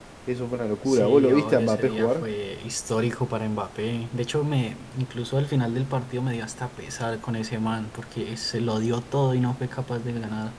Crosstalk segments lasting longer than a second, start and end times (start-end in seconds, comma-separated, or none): 0.8-2.2